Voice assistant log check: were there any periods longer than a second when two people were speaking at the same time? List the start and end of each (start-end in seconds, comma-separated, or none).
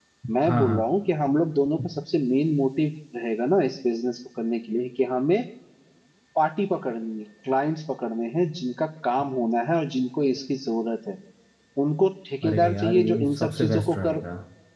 12.4-14.2